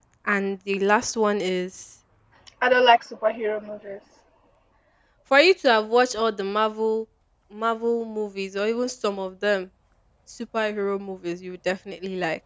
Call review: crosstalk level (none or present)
none